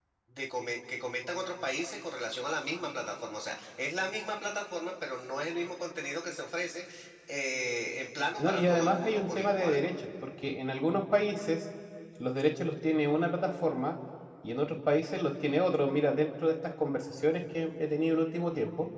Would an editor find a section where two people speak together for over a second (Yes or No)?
Yes